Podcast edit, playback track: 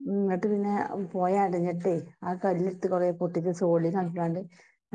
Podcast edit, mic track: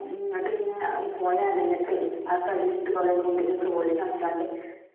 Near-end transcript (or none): none